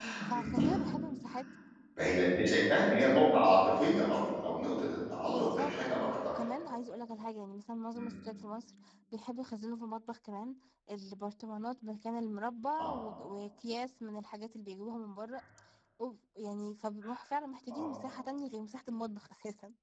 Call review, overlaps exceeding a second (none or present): present